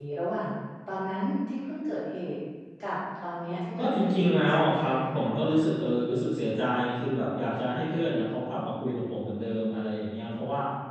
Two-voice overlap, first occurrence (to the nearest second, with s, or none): 4 s